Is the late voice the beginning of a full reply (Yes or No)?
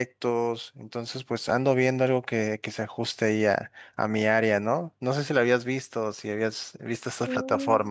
Yes